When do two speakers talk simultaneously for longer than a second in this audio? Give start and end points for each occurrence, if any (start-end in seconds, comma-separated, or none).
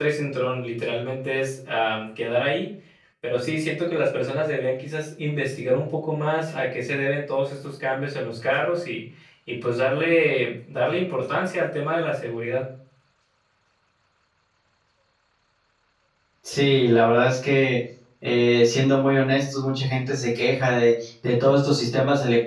none